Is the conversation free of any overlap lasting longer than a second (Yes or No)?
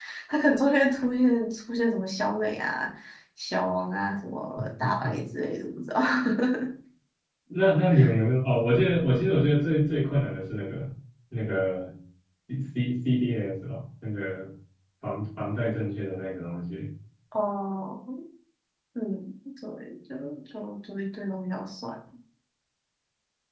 Yes